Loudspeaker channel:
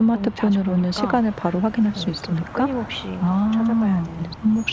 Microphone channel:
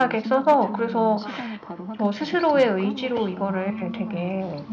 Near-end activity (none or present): present